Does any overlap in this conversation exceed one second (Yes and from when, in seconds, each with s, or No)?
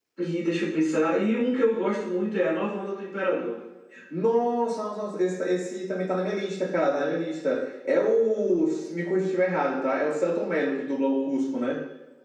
No